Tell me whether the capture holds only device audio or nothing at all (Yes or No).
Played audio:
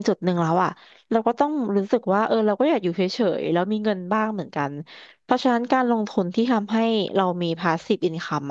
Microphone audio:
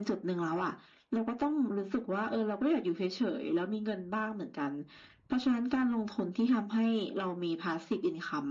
Yes